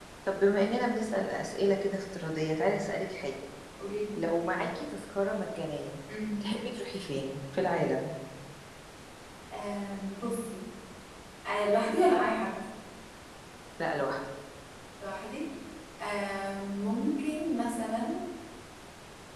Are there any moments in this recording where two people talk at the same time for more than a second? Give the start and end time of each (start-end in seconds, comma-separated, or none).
none